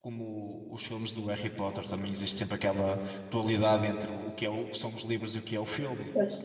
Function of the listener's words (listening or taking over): taking over